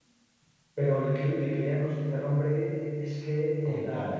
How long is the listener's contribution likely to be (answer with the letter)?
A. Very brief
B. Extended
A